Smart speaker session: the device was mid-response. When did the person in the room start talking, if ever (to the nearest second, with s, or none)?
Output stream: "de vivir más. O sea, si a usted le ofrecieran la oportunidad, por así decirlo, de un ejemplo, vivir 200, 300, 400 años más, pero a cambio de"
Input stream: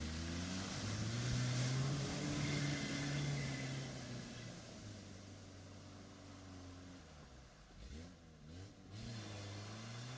none